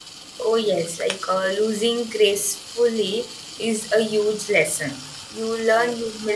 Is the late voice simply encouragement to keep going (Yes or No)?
Yes